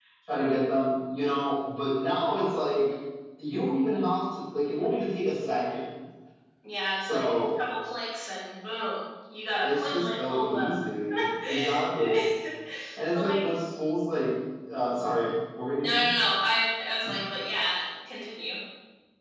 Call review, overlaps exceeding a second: present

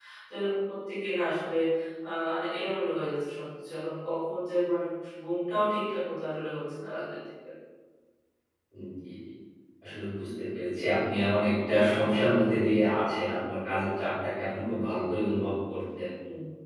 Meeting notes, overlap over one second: none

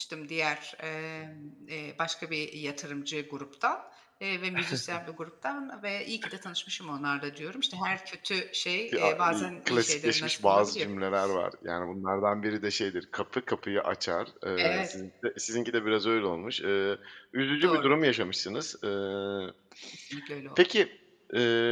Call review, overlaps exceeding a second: present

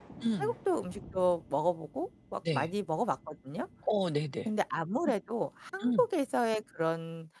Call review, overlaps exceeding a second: none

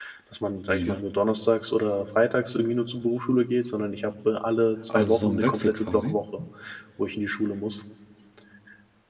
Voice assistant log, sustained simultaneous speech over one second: present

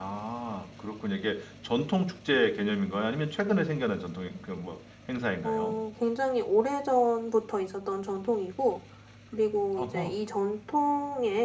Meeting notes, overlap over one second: none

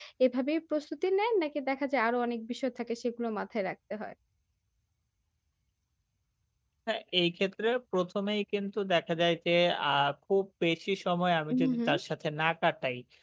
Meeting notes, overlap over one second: none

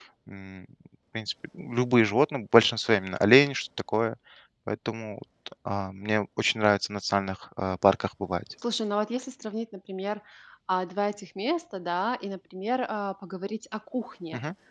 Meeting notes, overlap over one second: none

